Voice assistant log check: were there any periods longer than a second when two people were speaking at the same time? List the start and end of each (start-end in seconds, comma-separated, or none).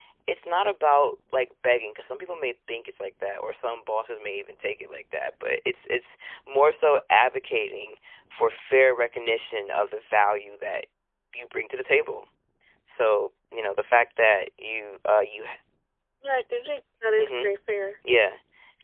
none